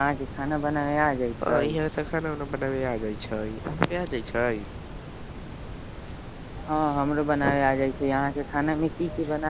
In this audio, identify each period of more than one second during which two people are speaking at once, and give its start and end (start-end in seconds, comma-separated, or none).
none